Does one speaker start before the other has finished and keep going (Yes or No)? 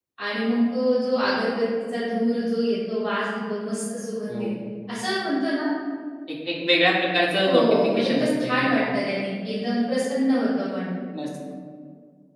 Yes